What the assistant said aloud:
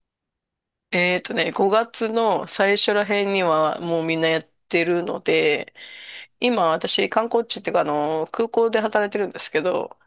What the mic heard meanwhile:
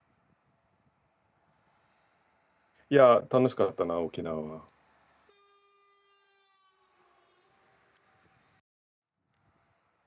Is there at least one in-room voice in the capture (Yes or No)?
Yes